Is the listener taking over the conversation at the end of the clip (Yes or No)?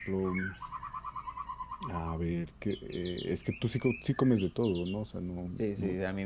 Yes